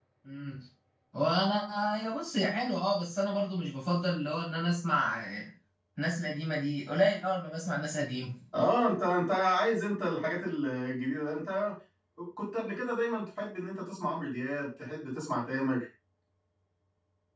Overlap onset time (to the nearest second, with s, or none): none